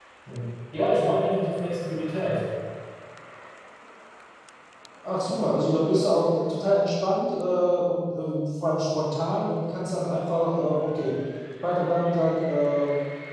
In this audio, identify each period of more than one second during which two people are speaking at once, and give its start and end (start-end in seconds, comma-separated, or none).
none